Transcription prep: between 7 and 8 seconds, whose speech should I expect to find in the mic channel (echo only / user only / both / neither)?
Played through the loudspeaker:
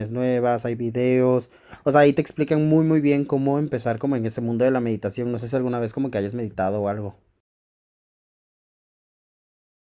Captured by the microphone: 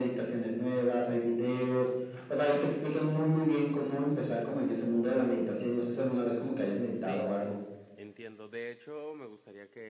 both